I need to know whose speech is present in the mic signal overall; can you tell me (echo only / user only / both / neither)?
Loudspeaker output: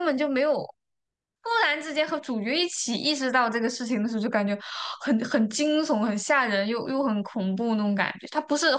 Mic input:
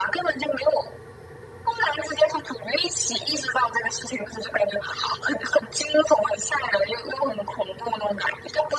echo only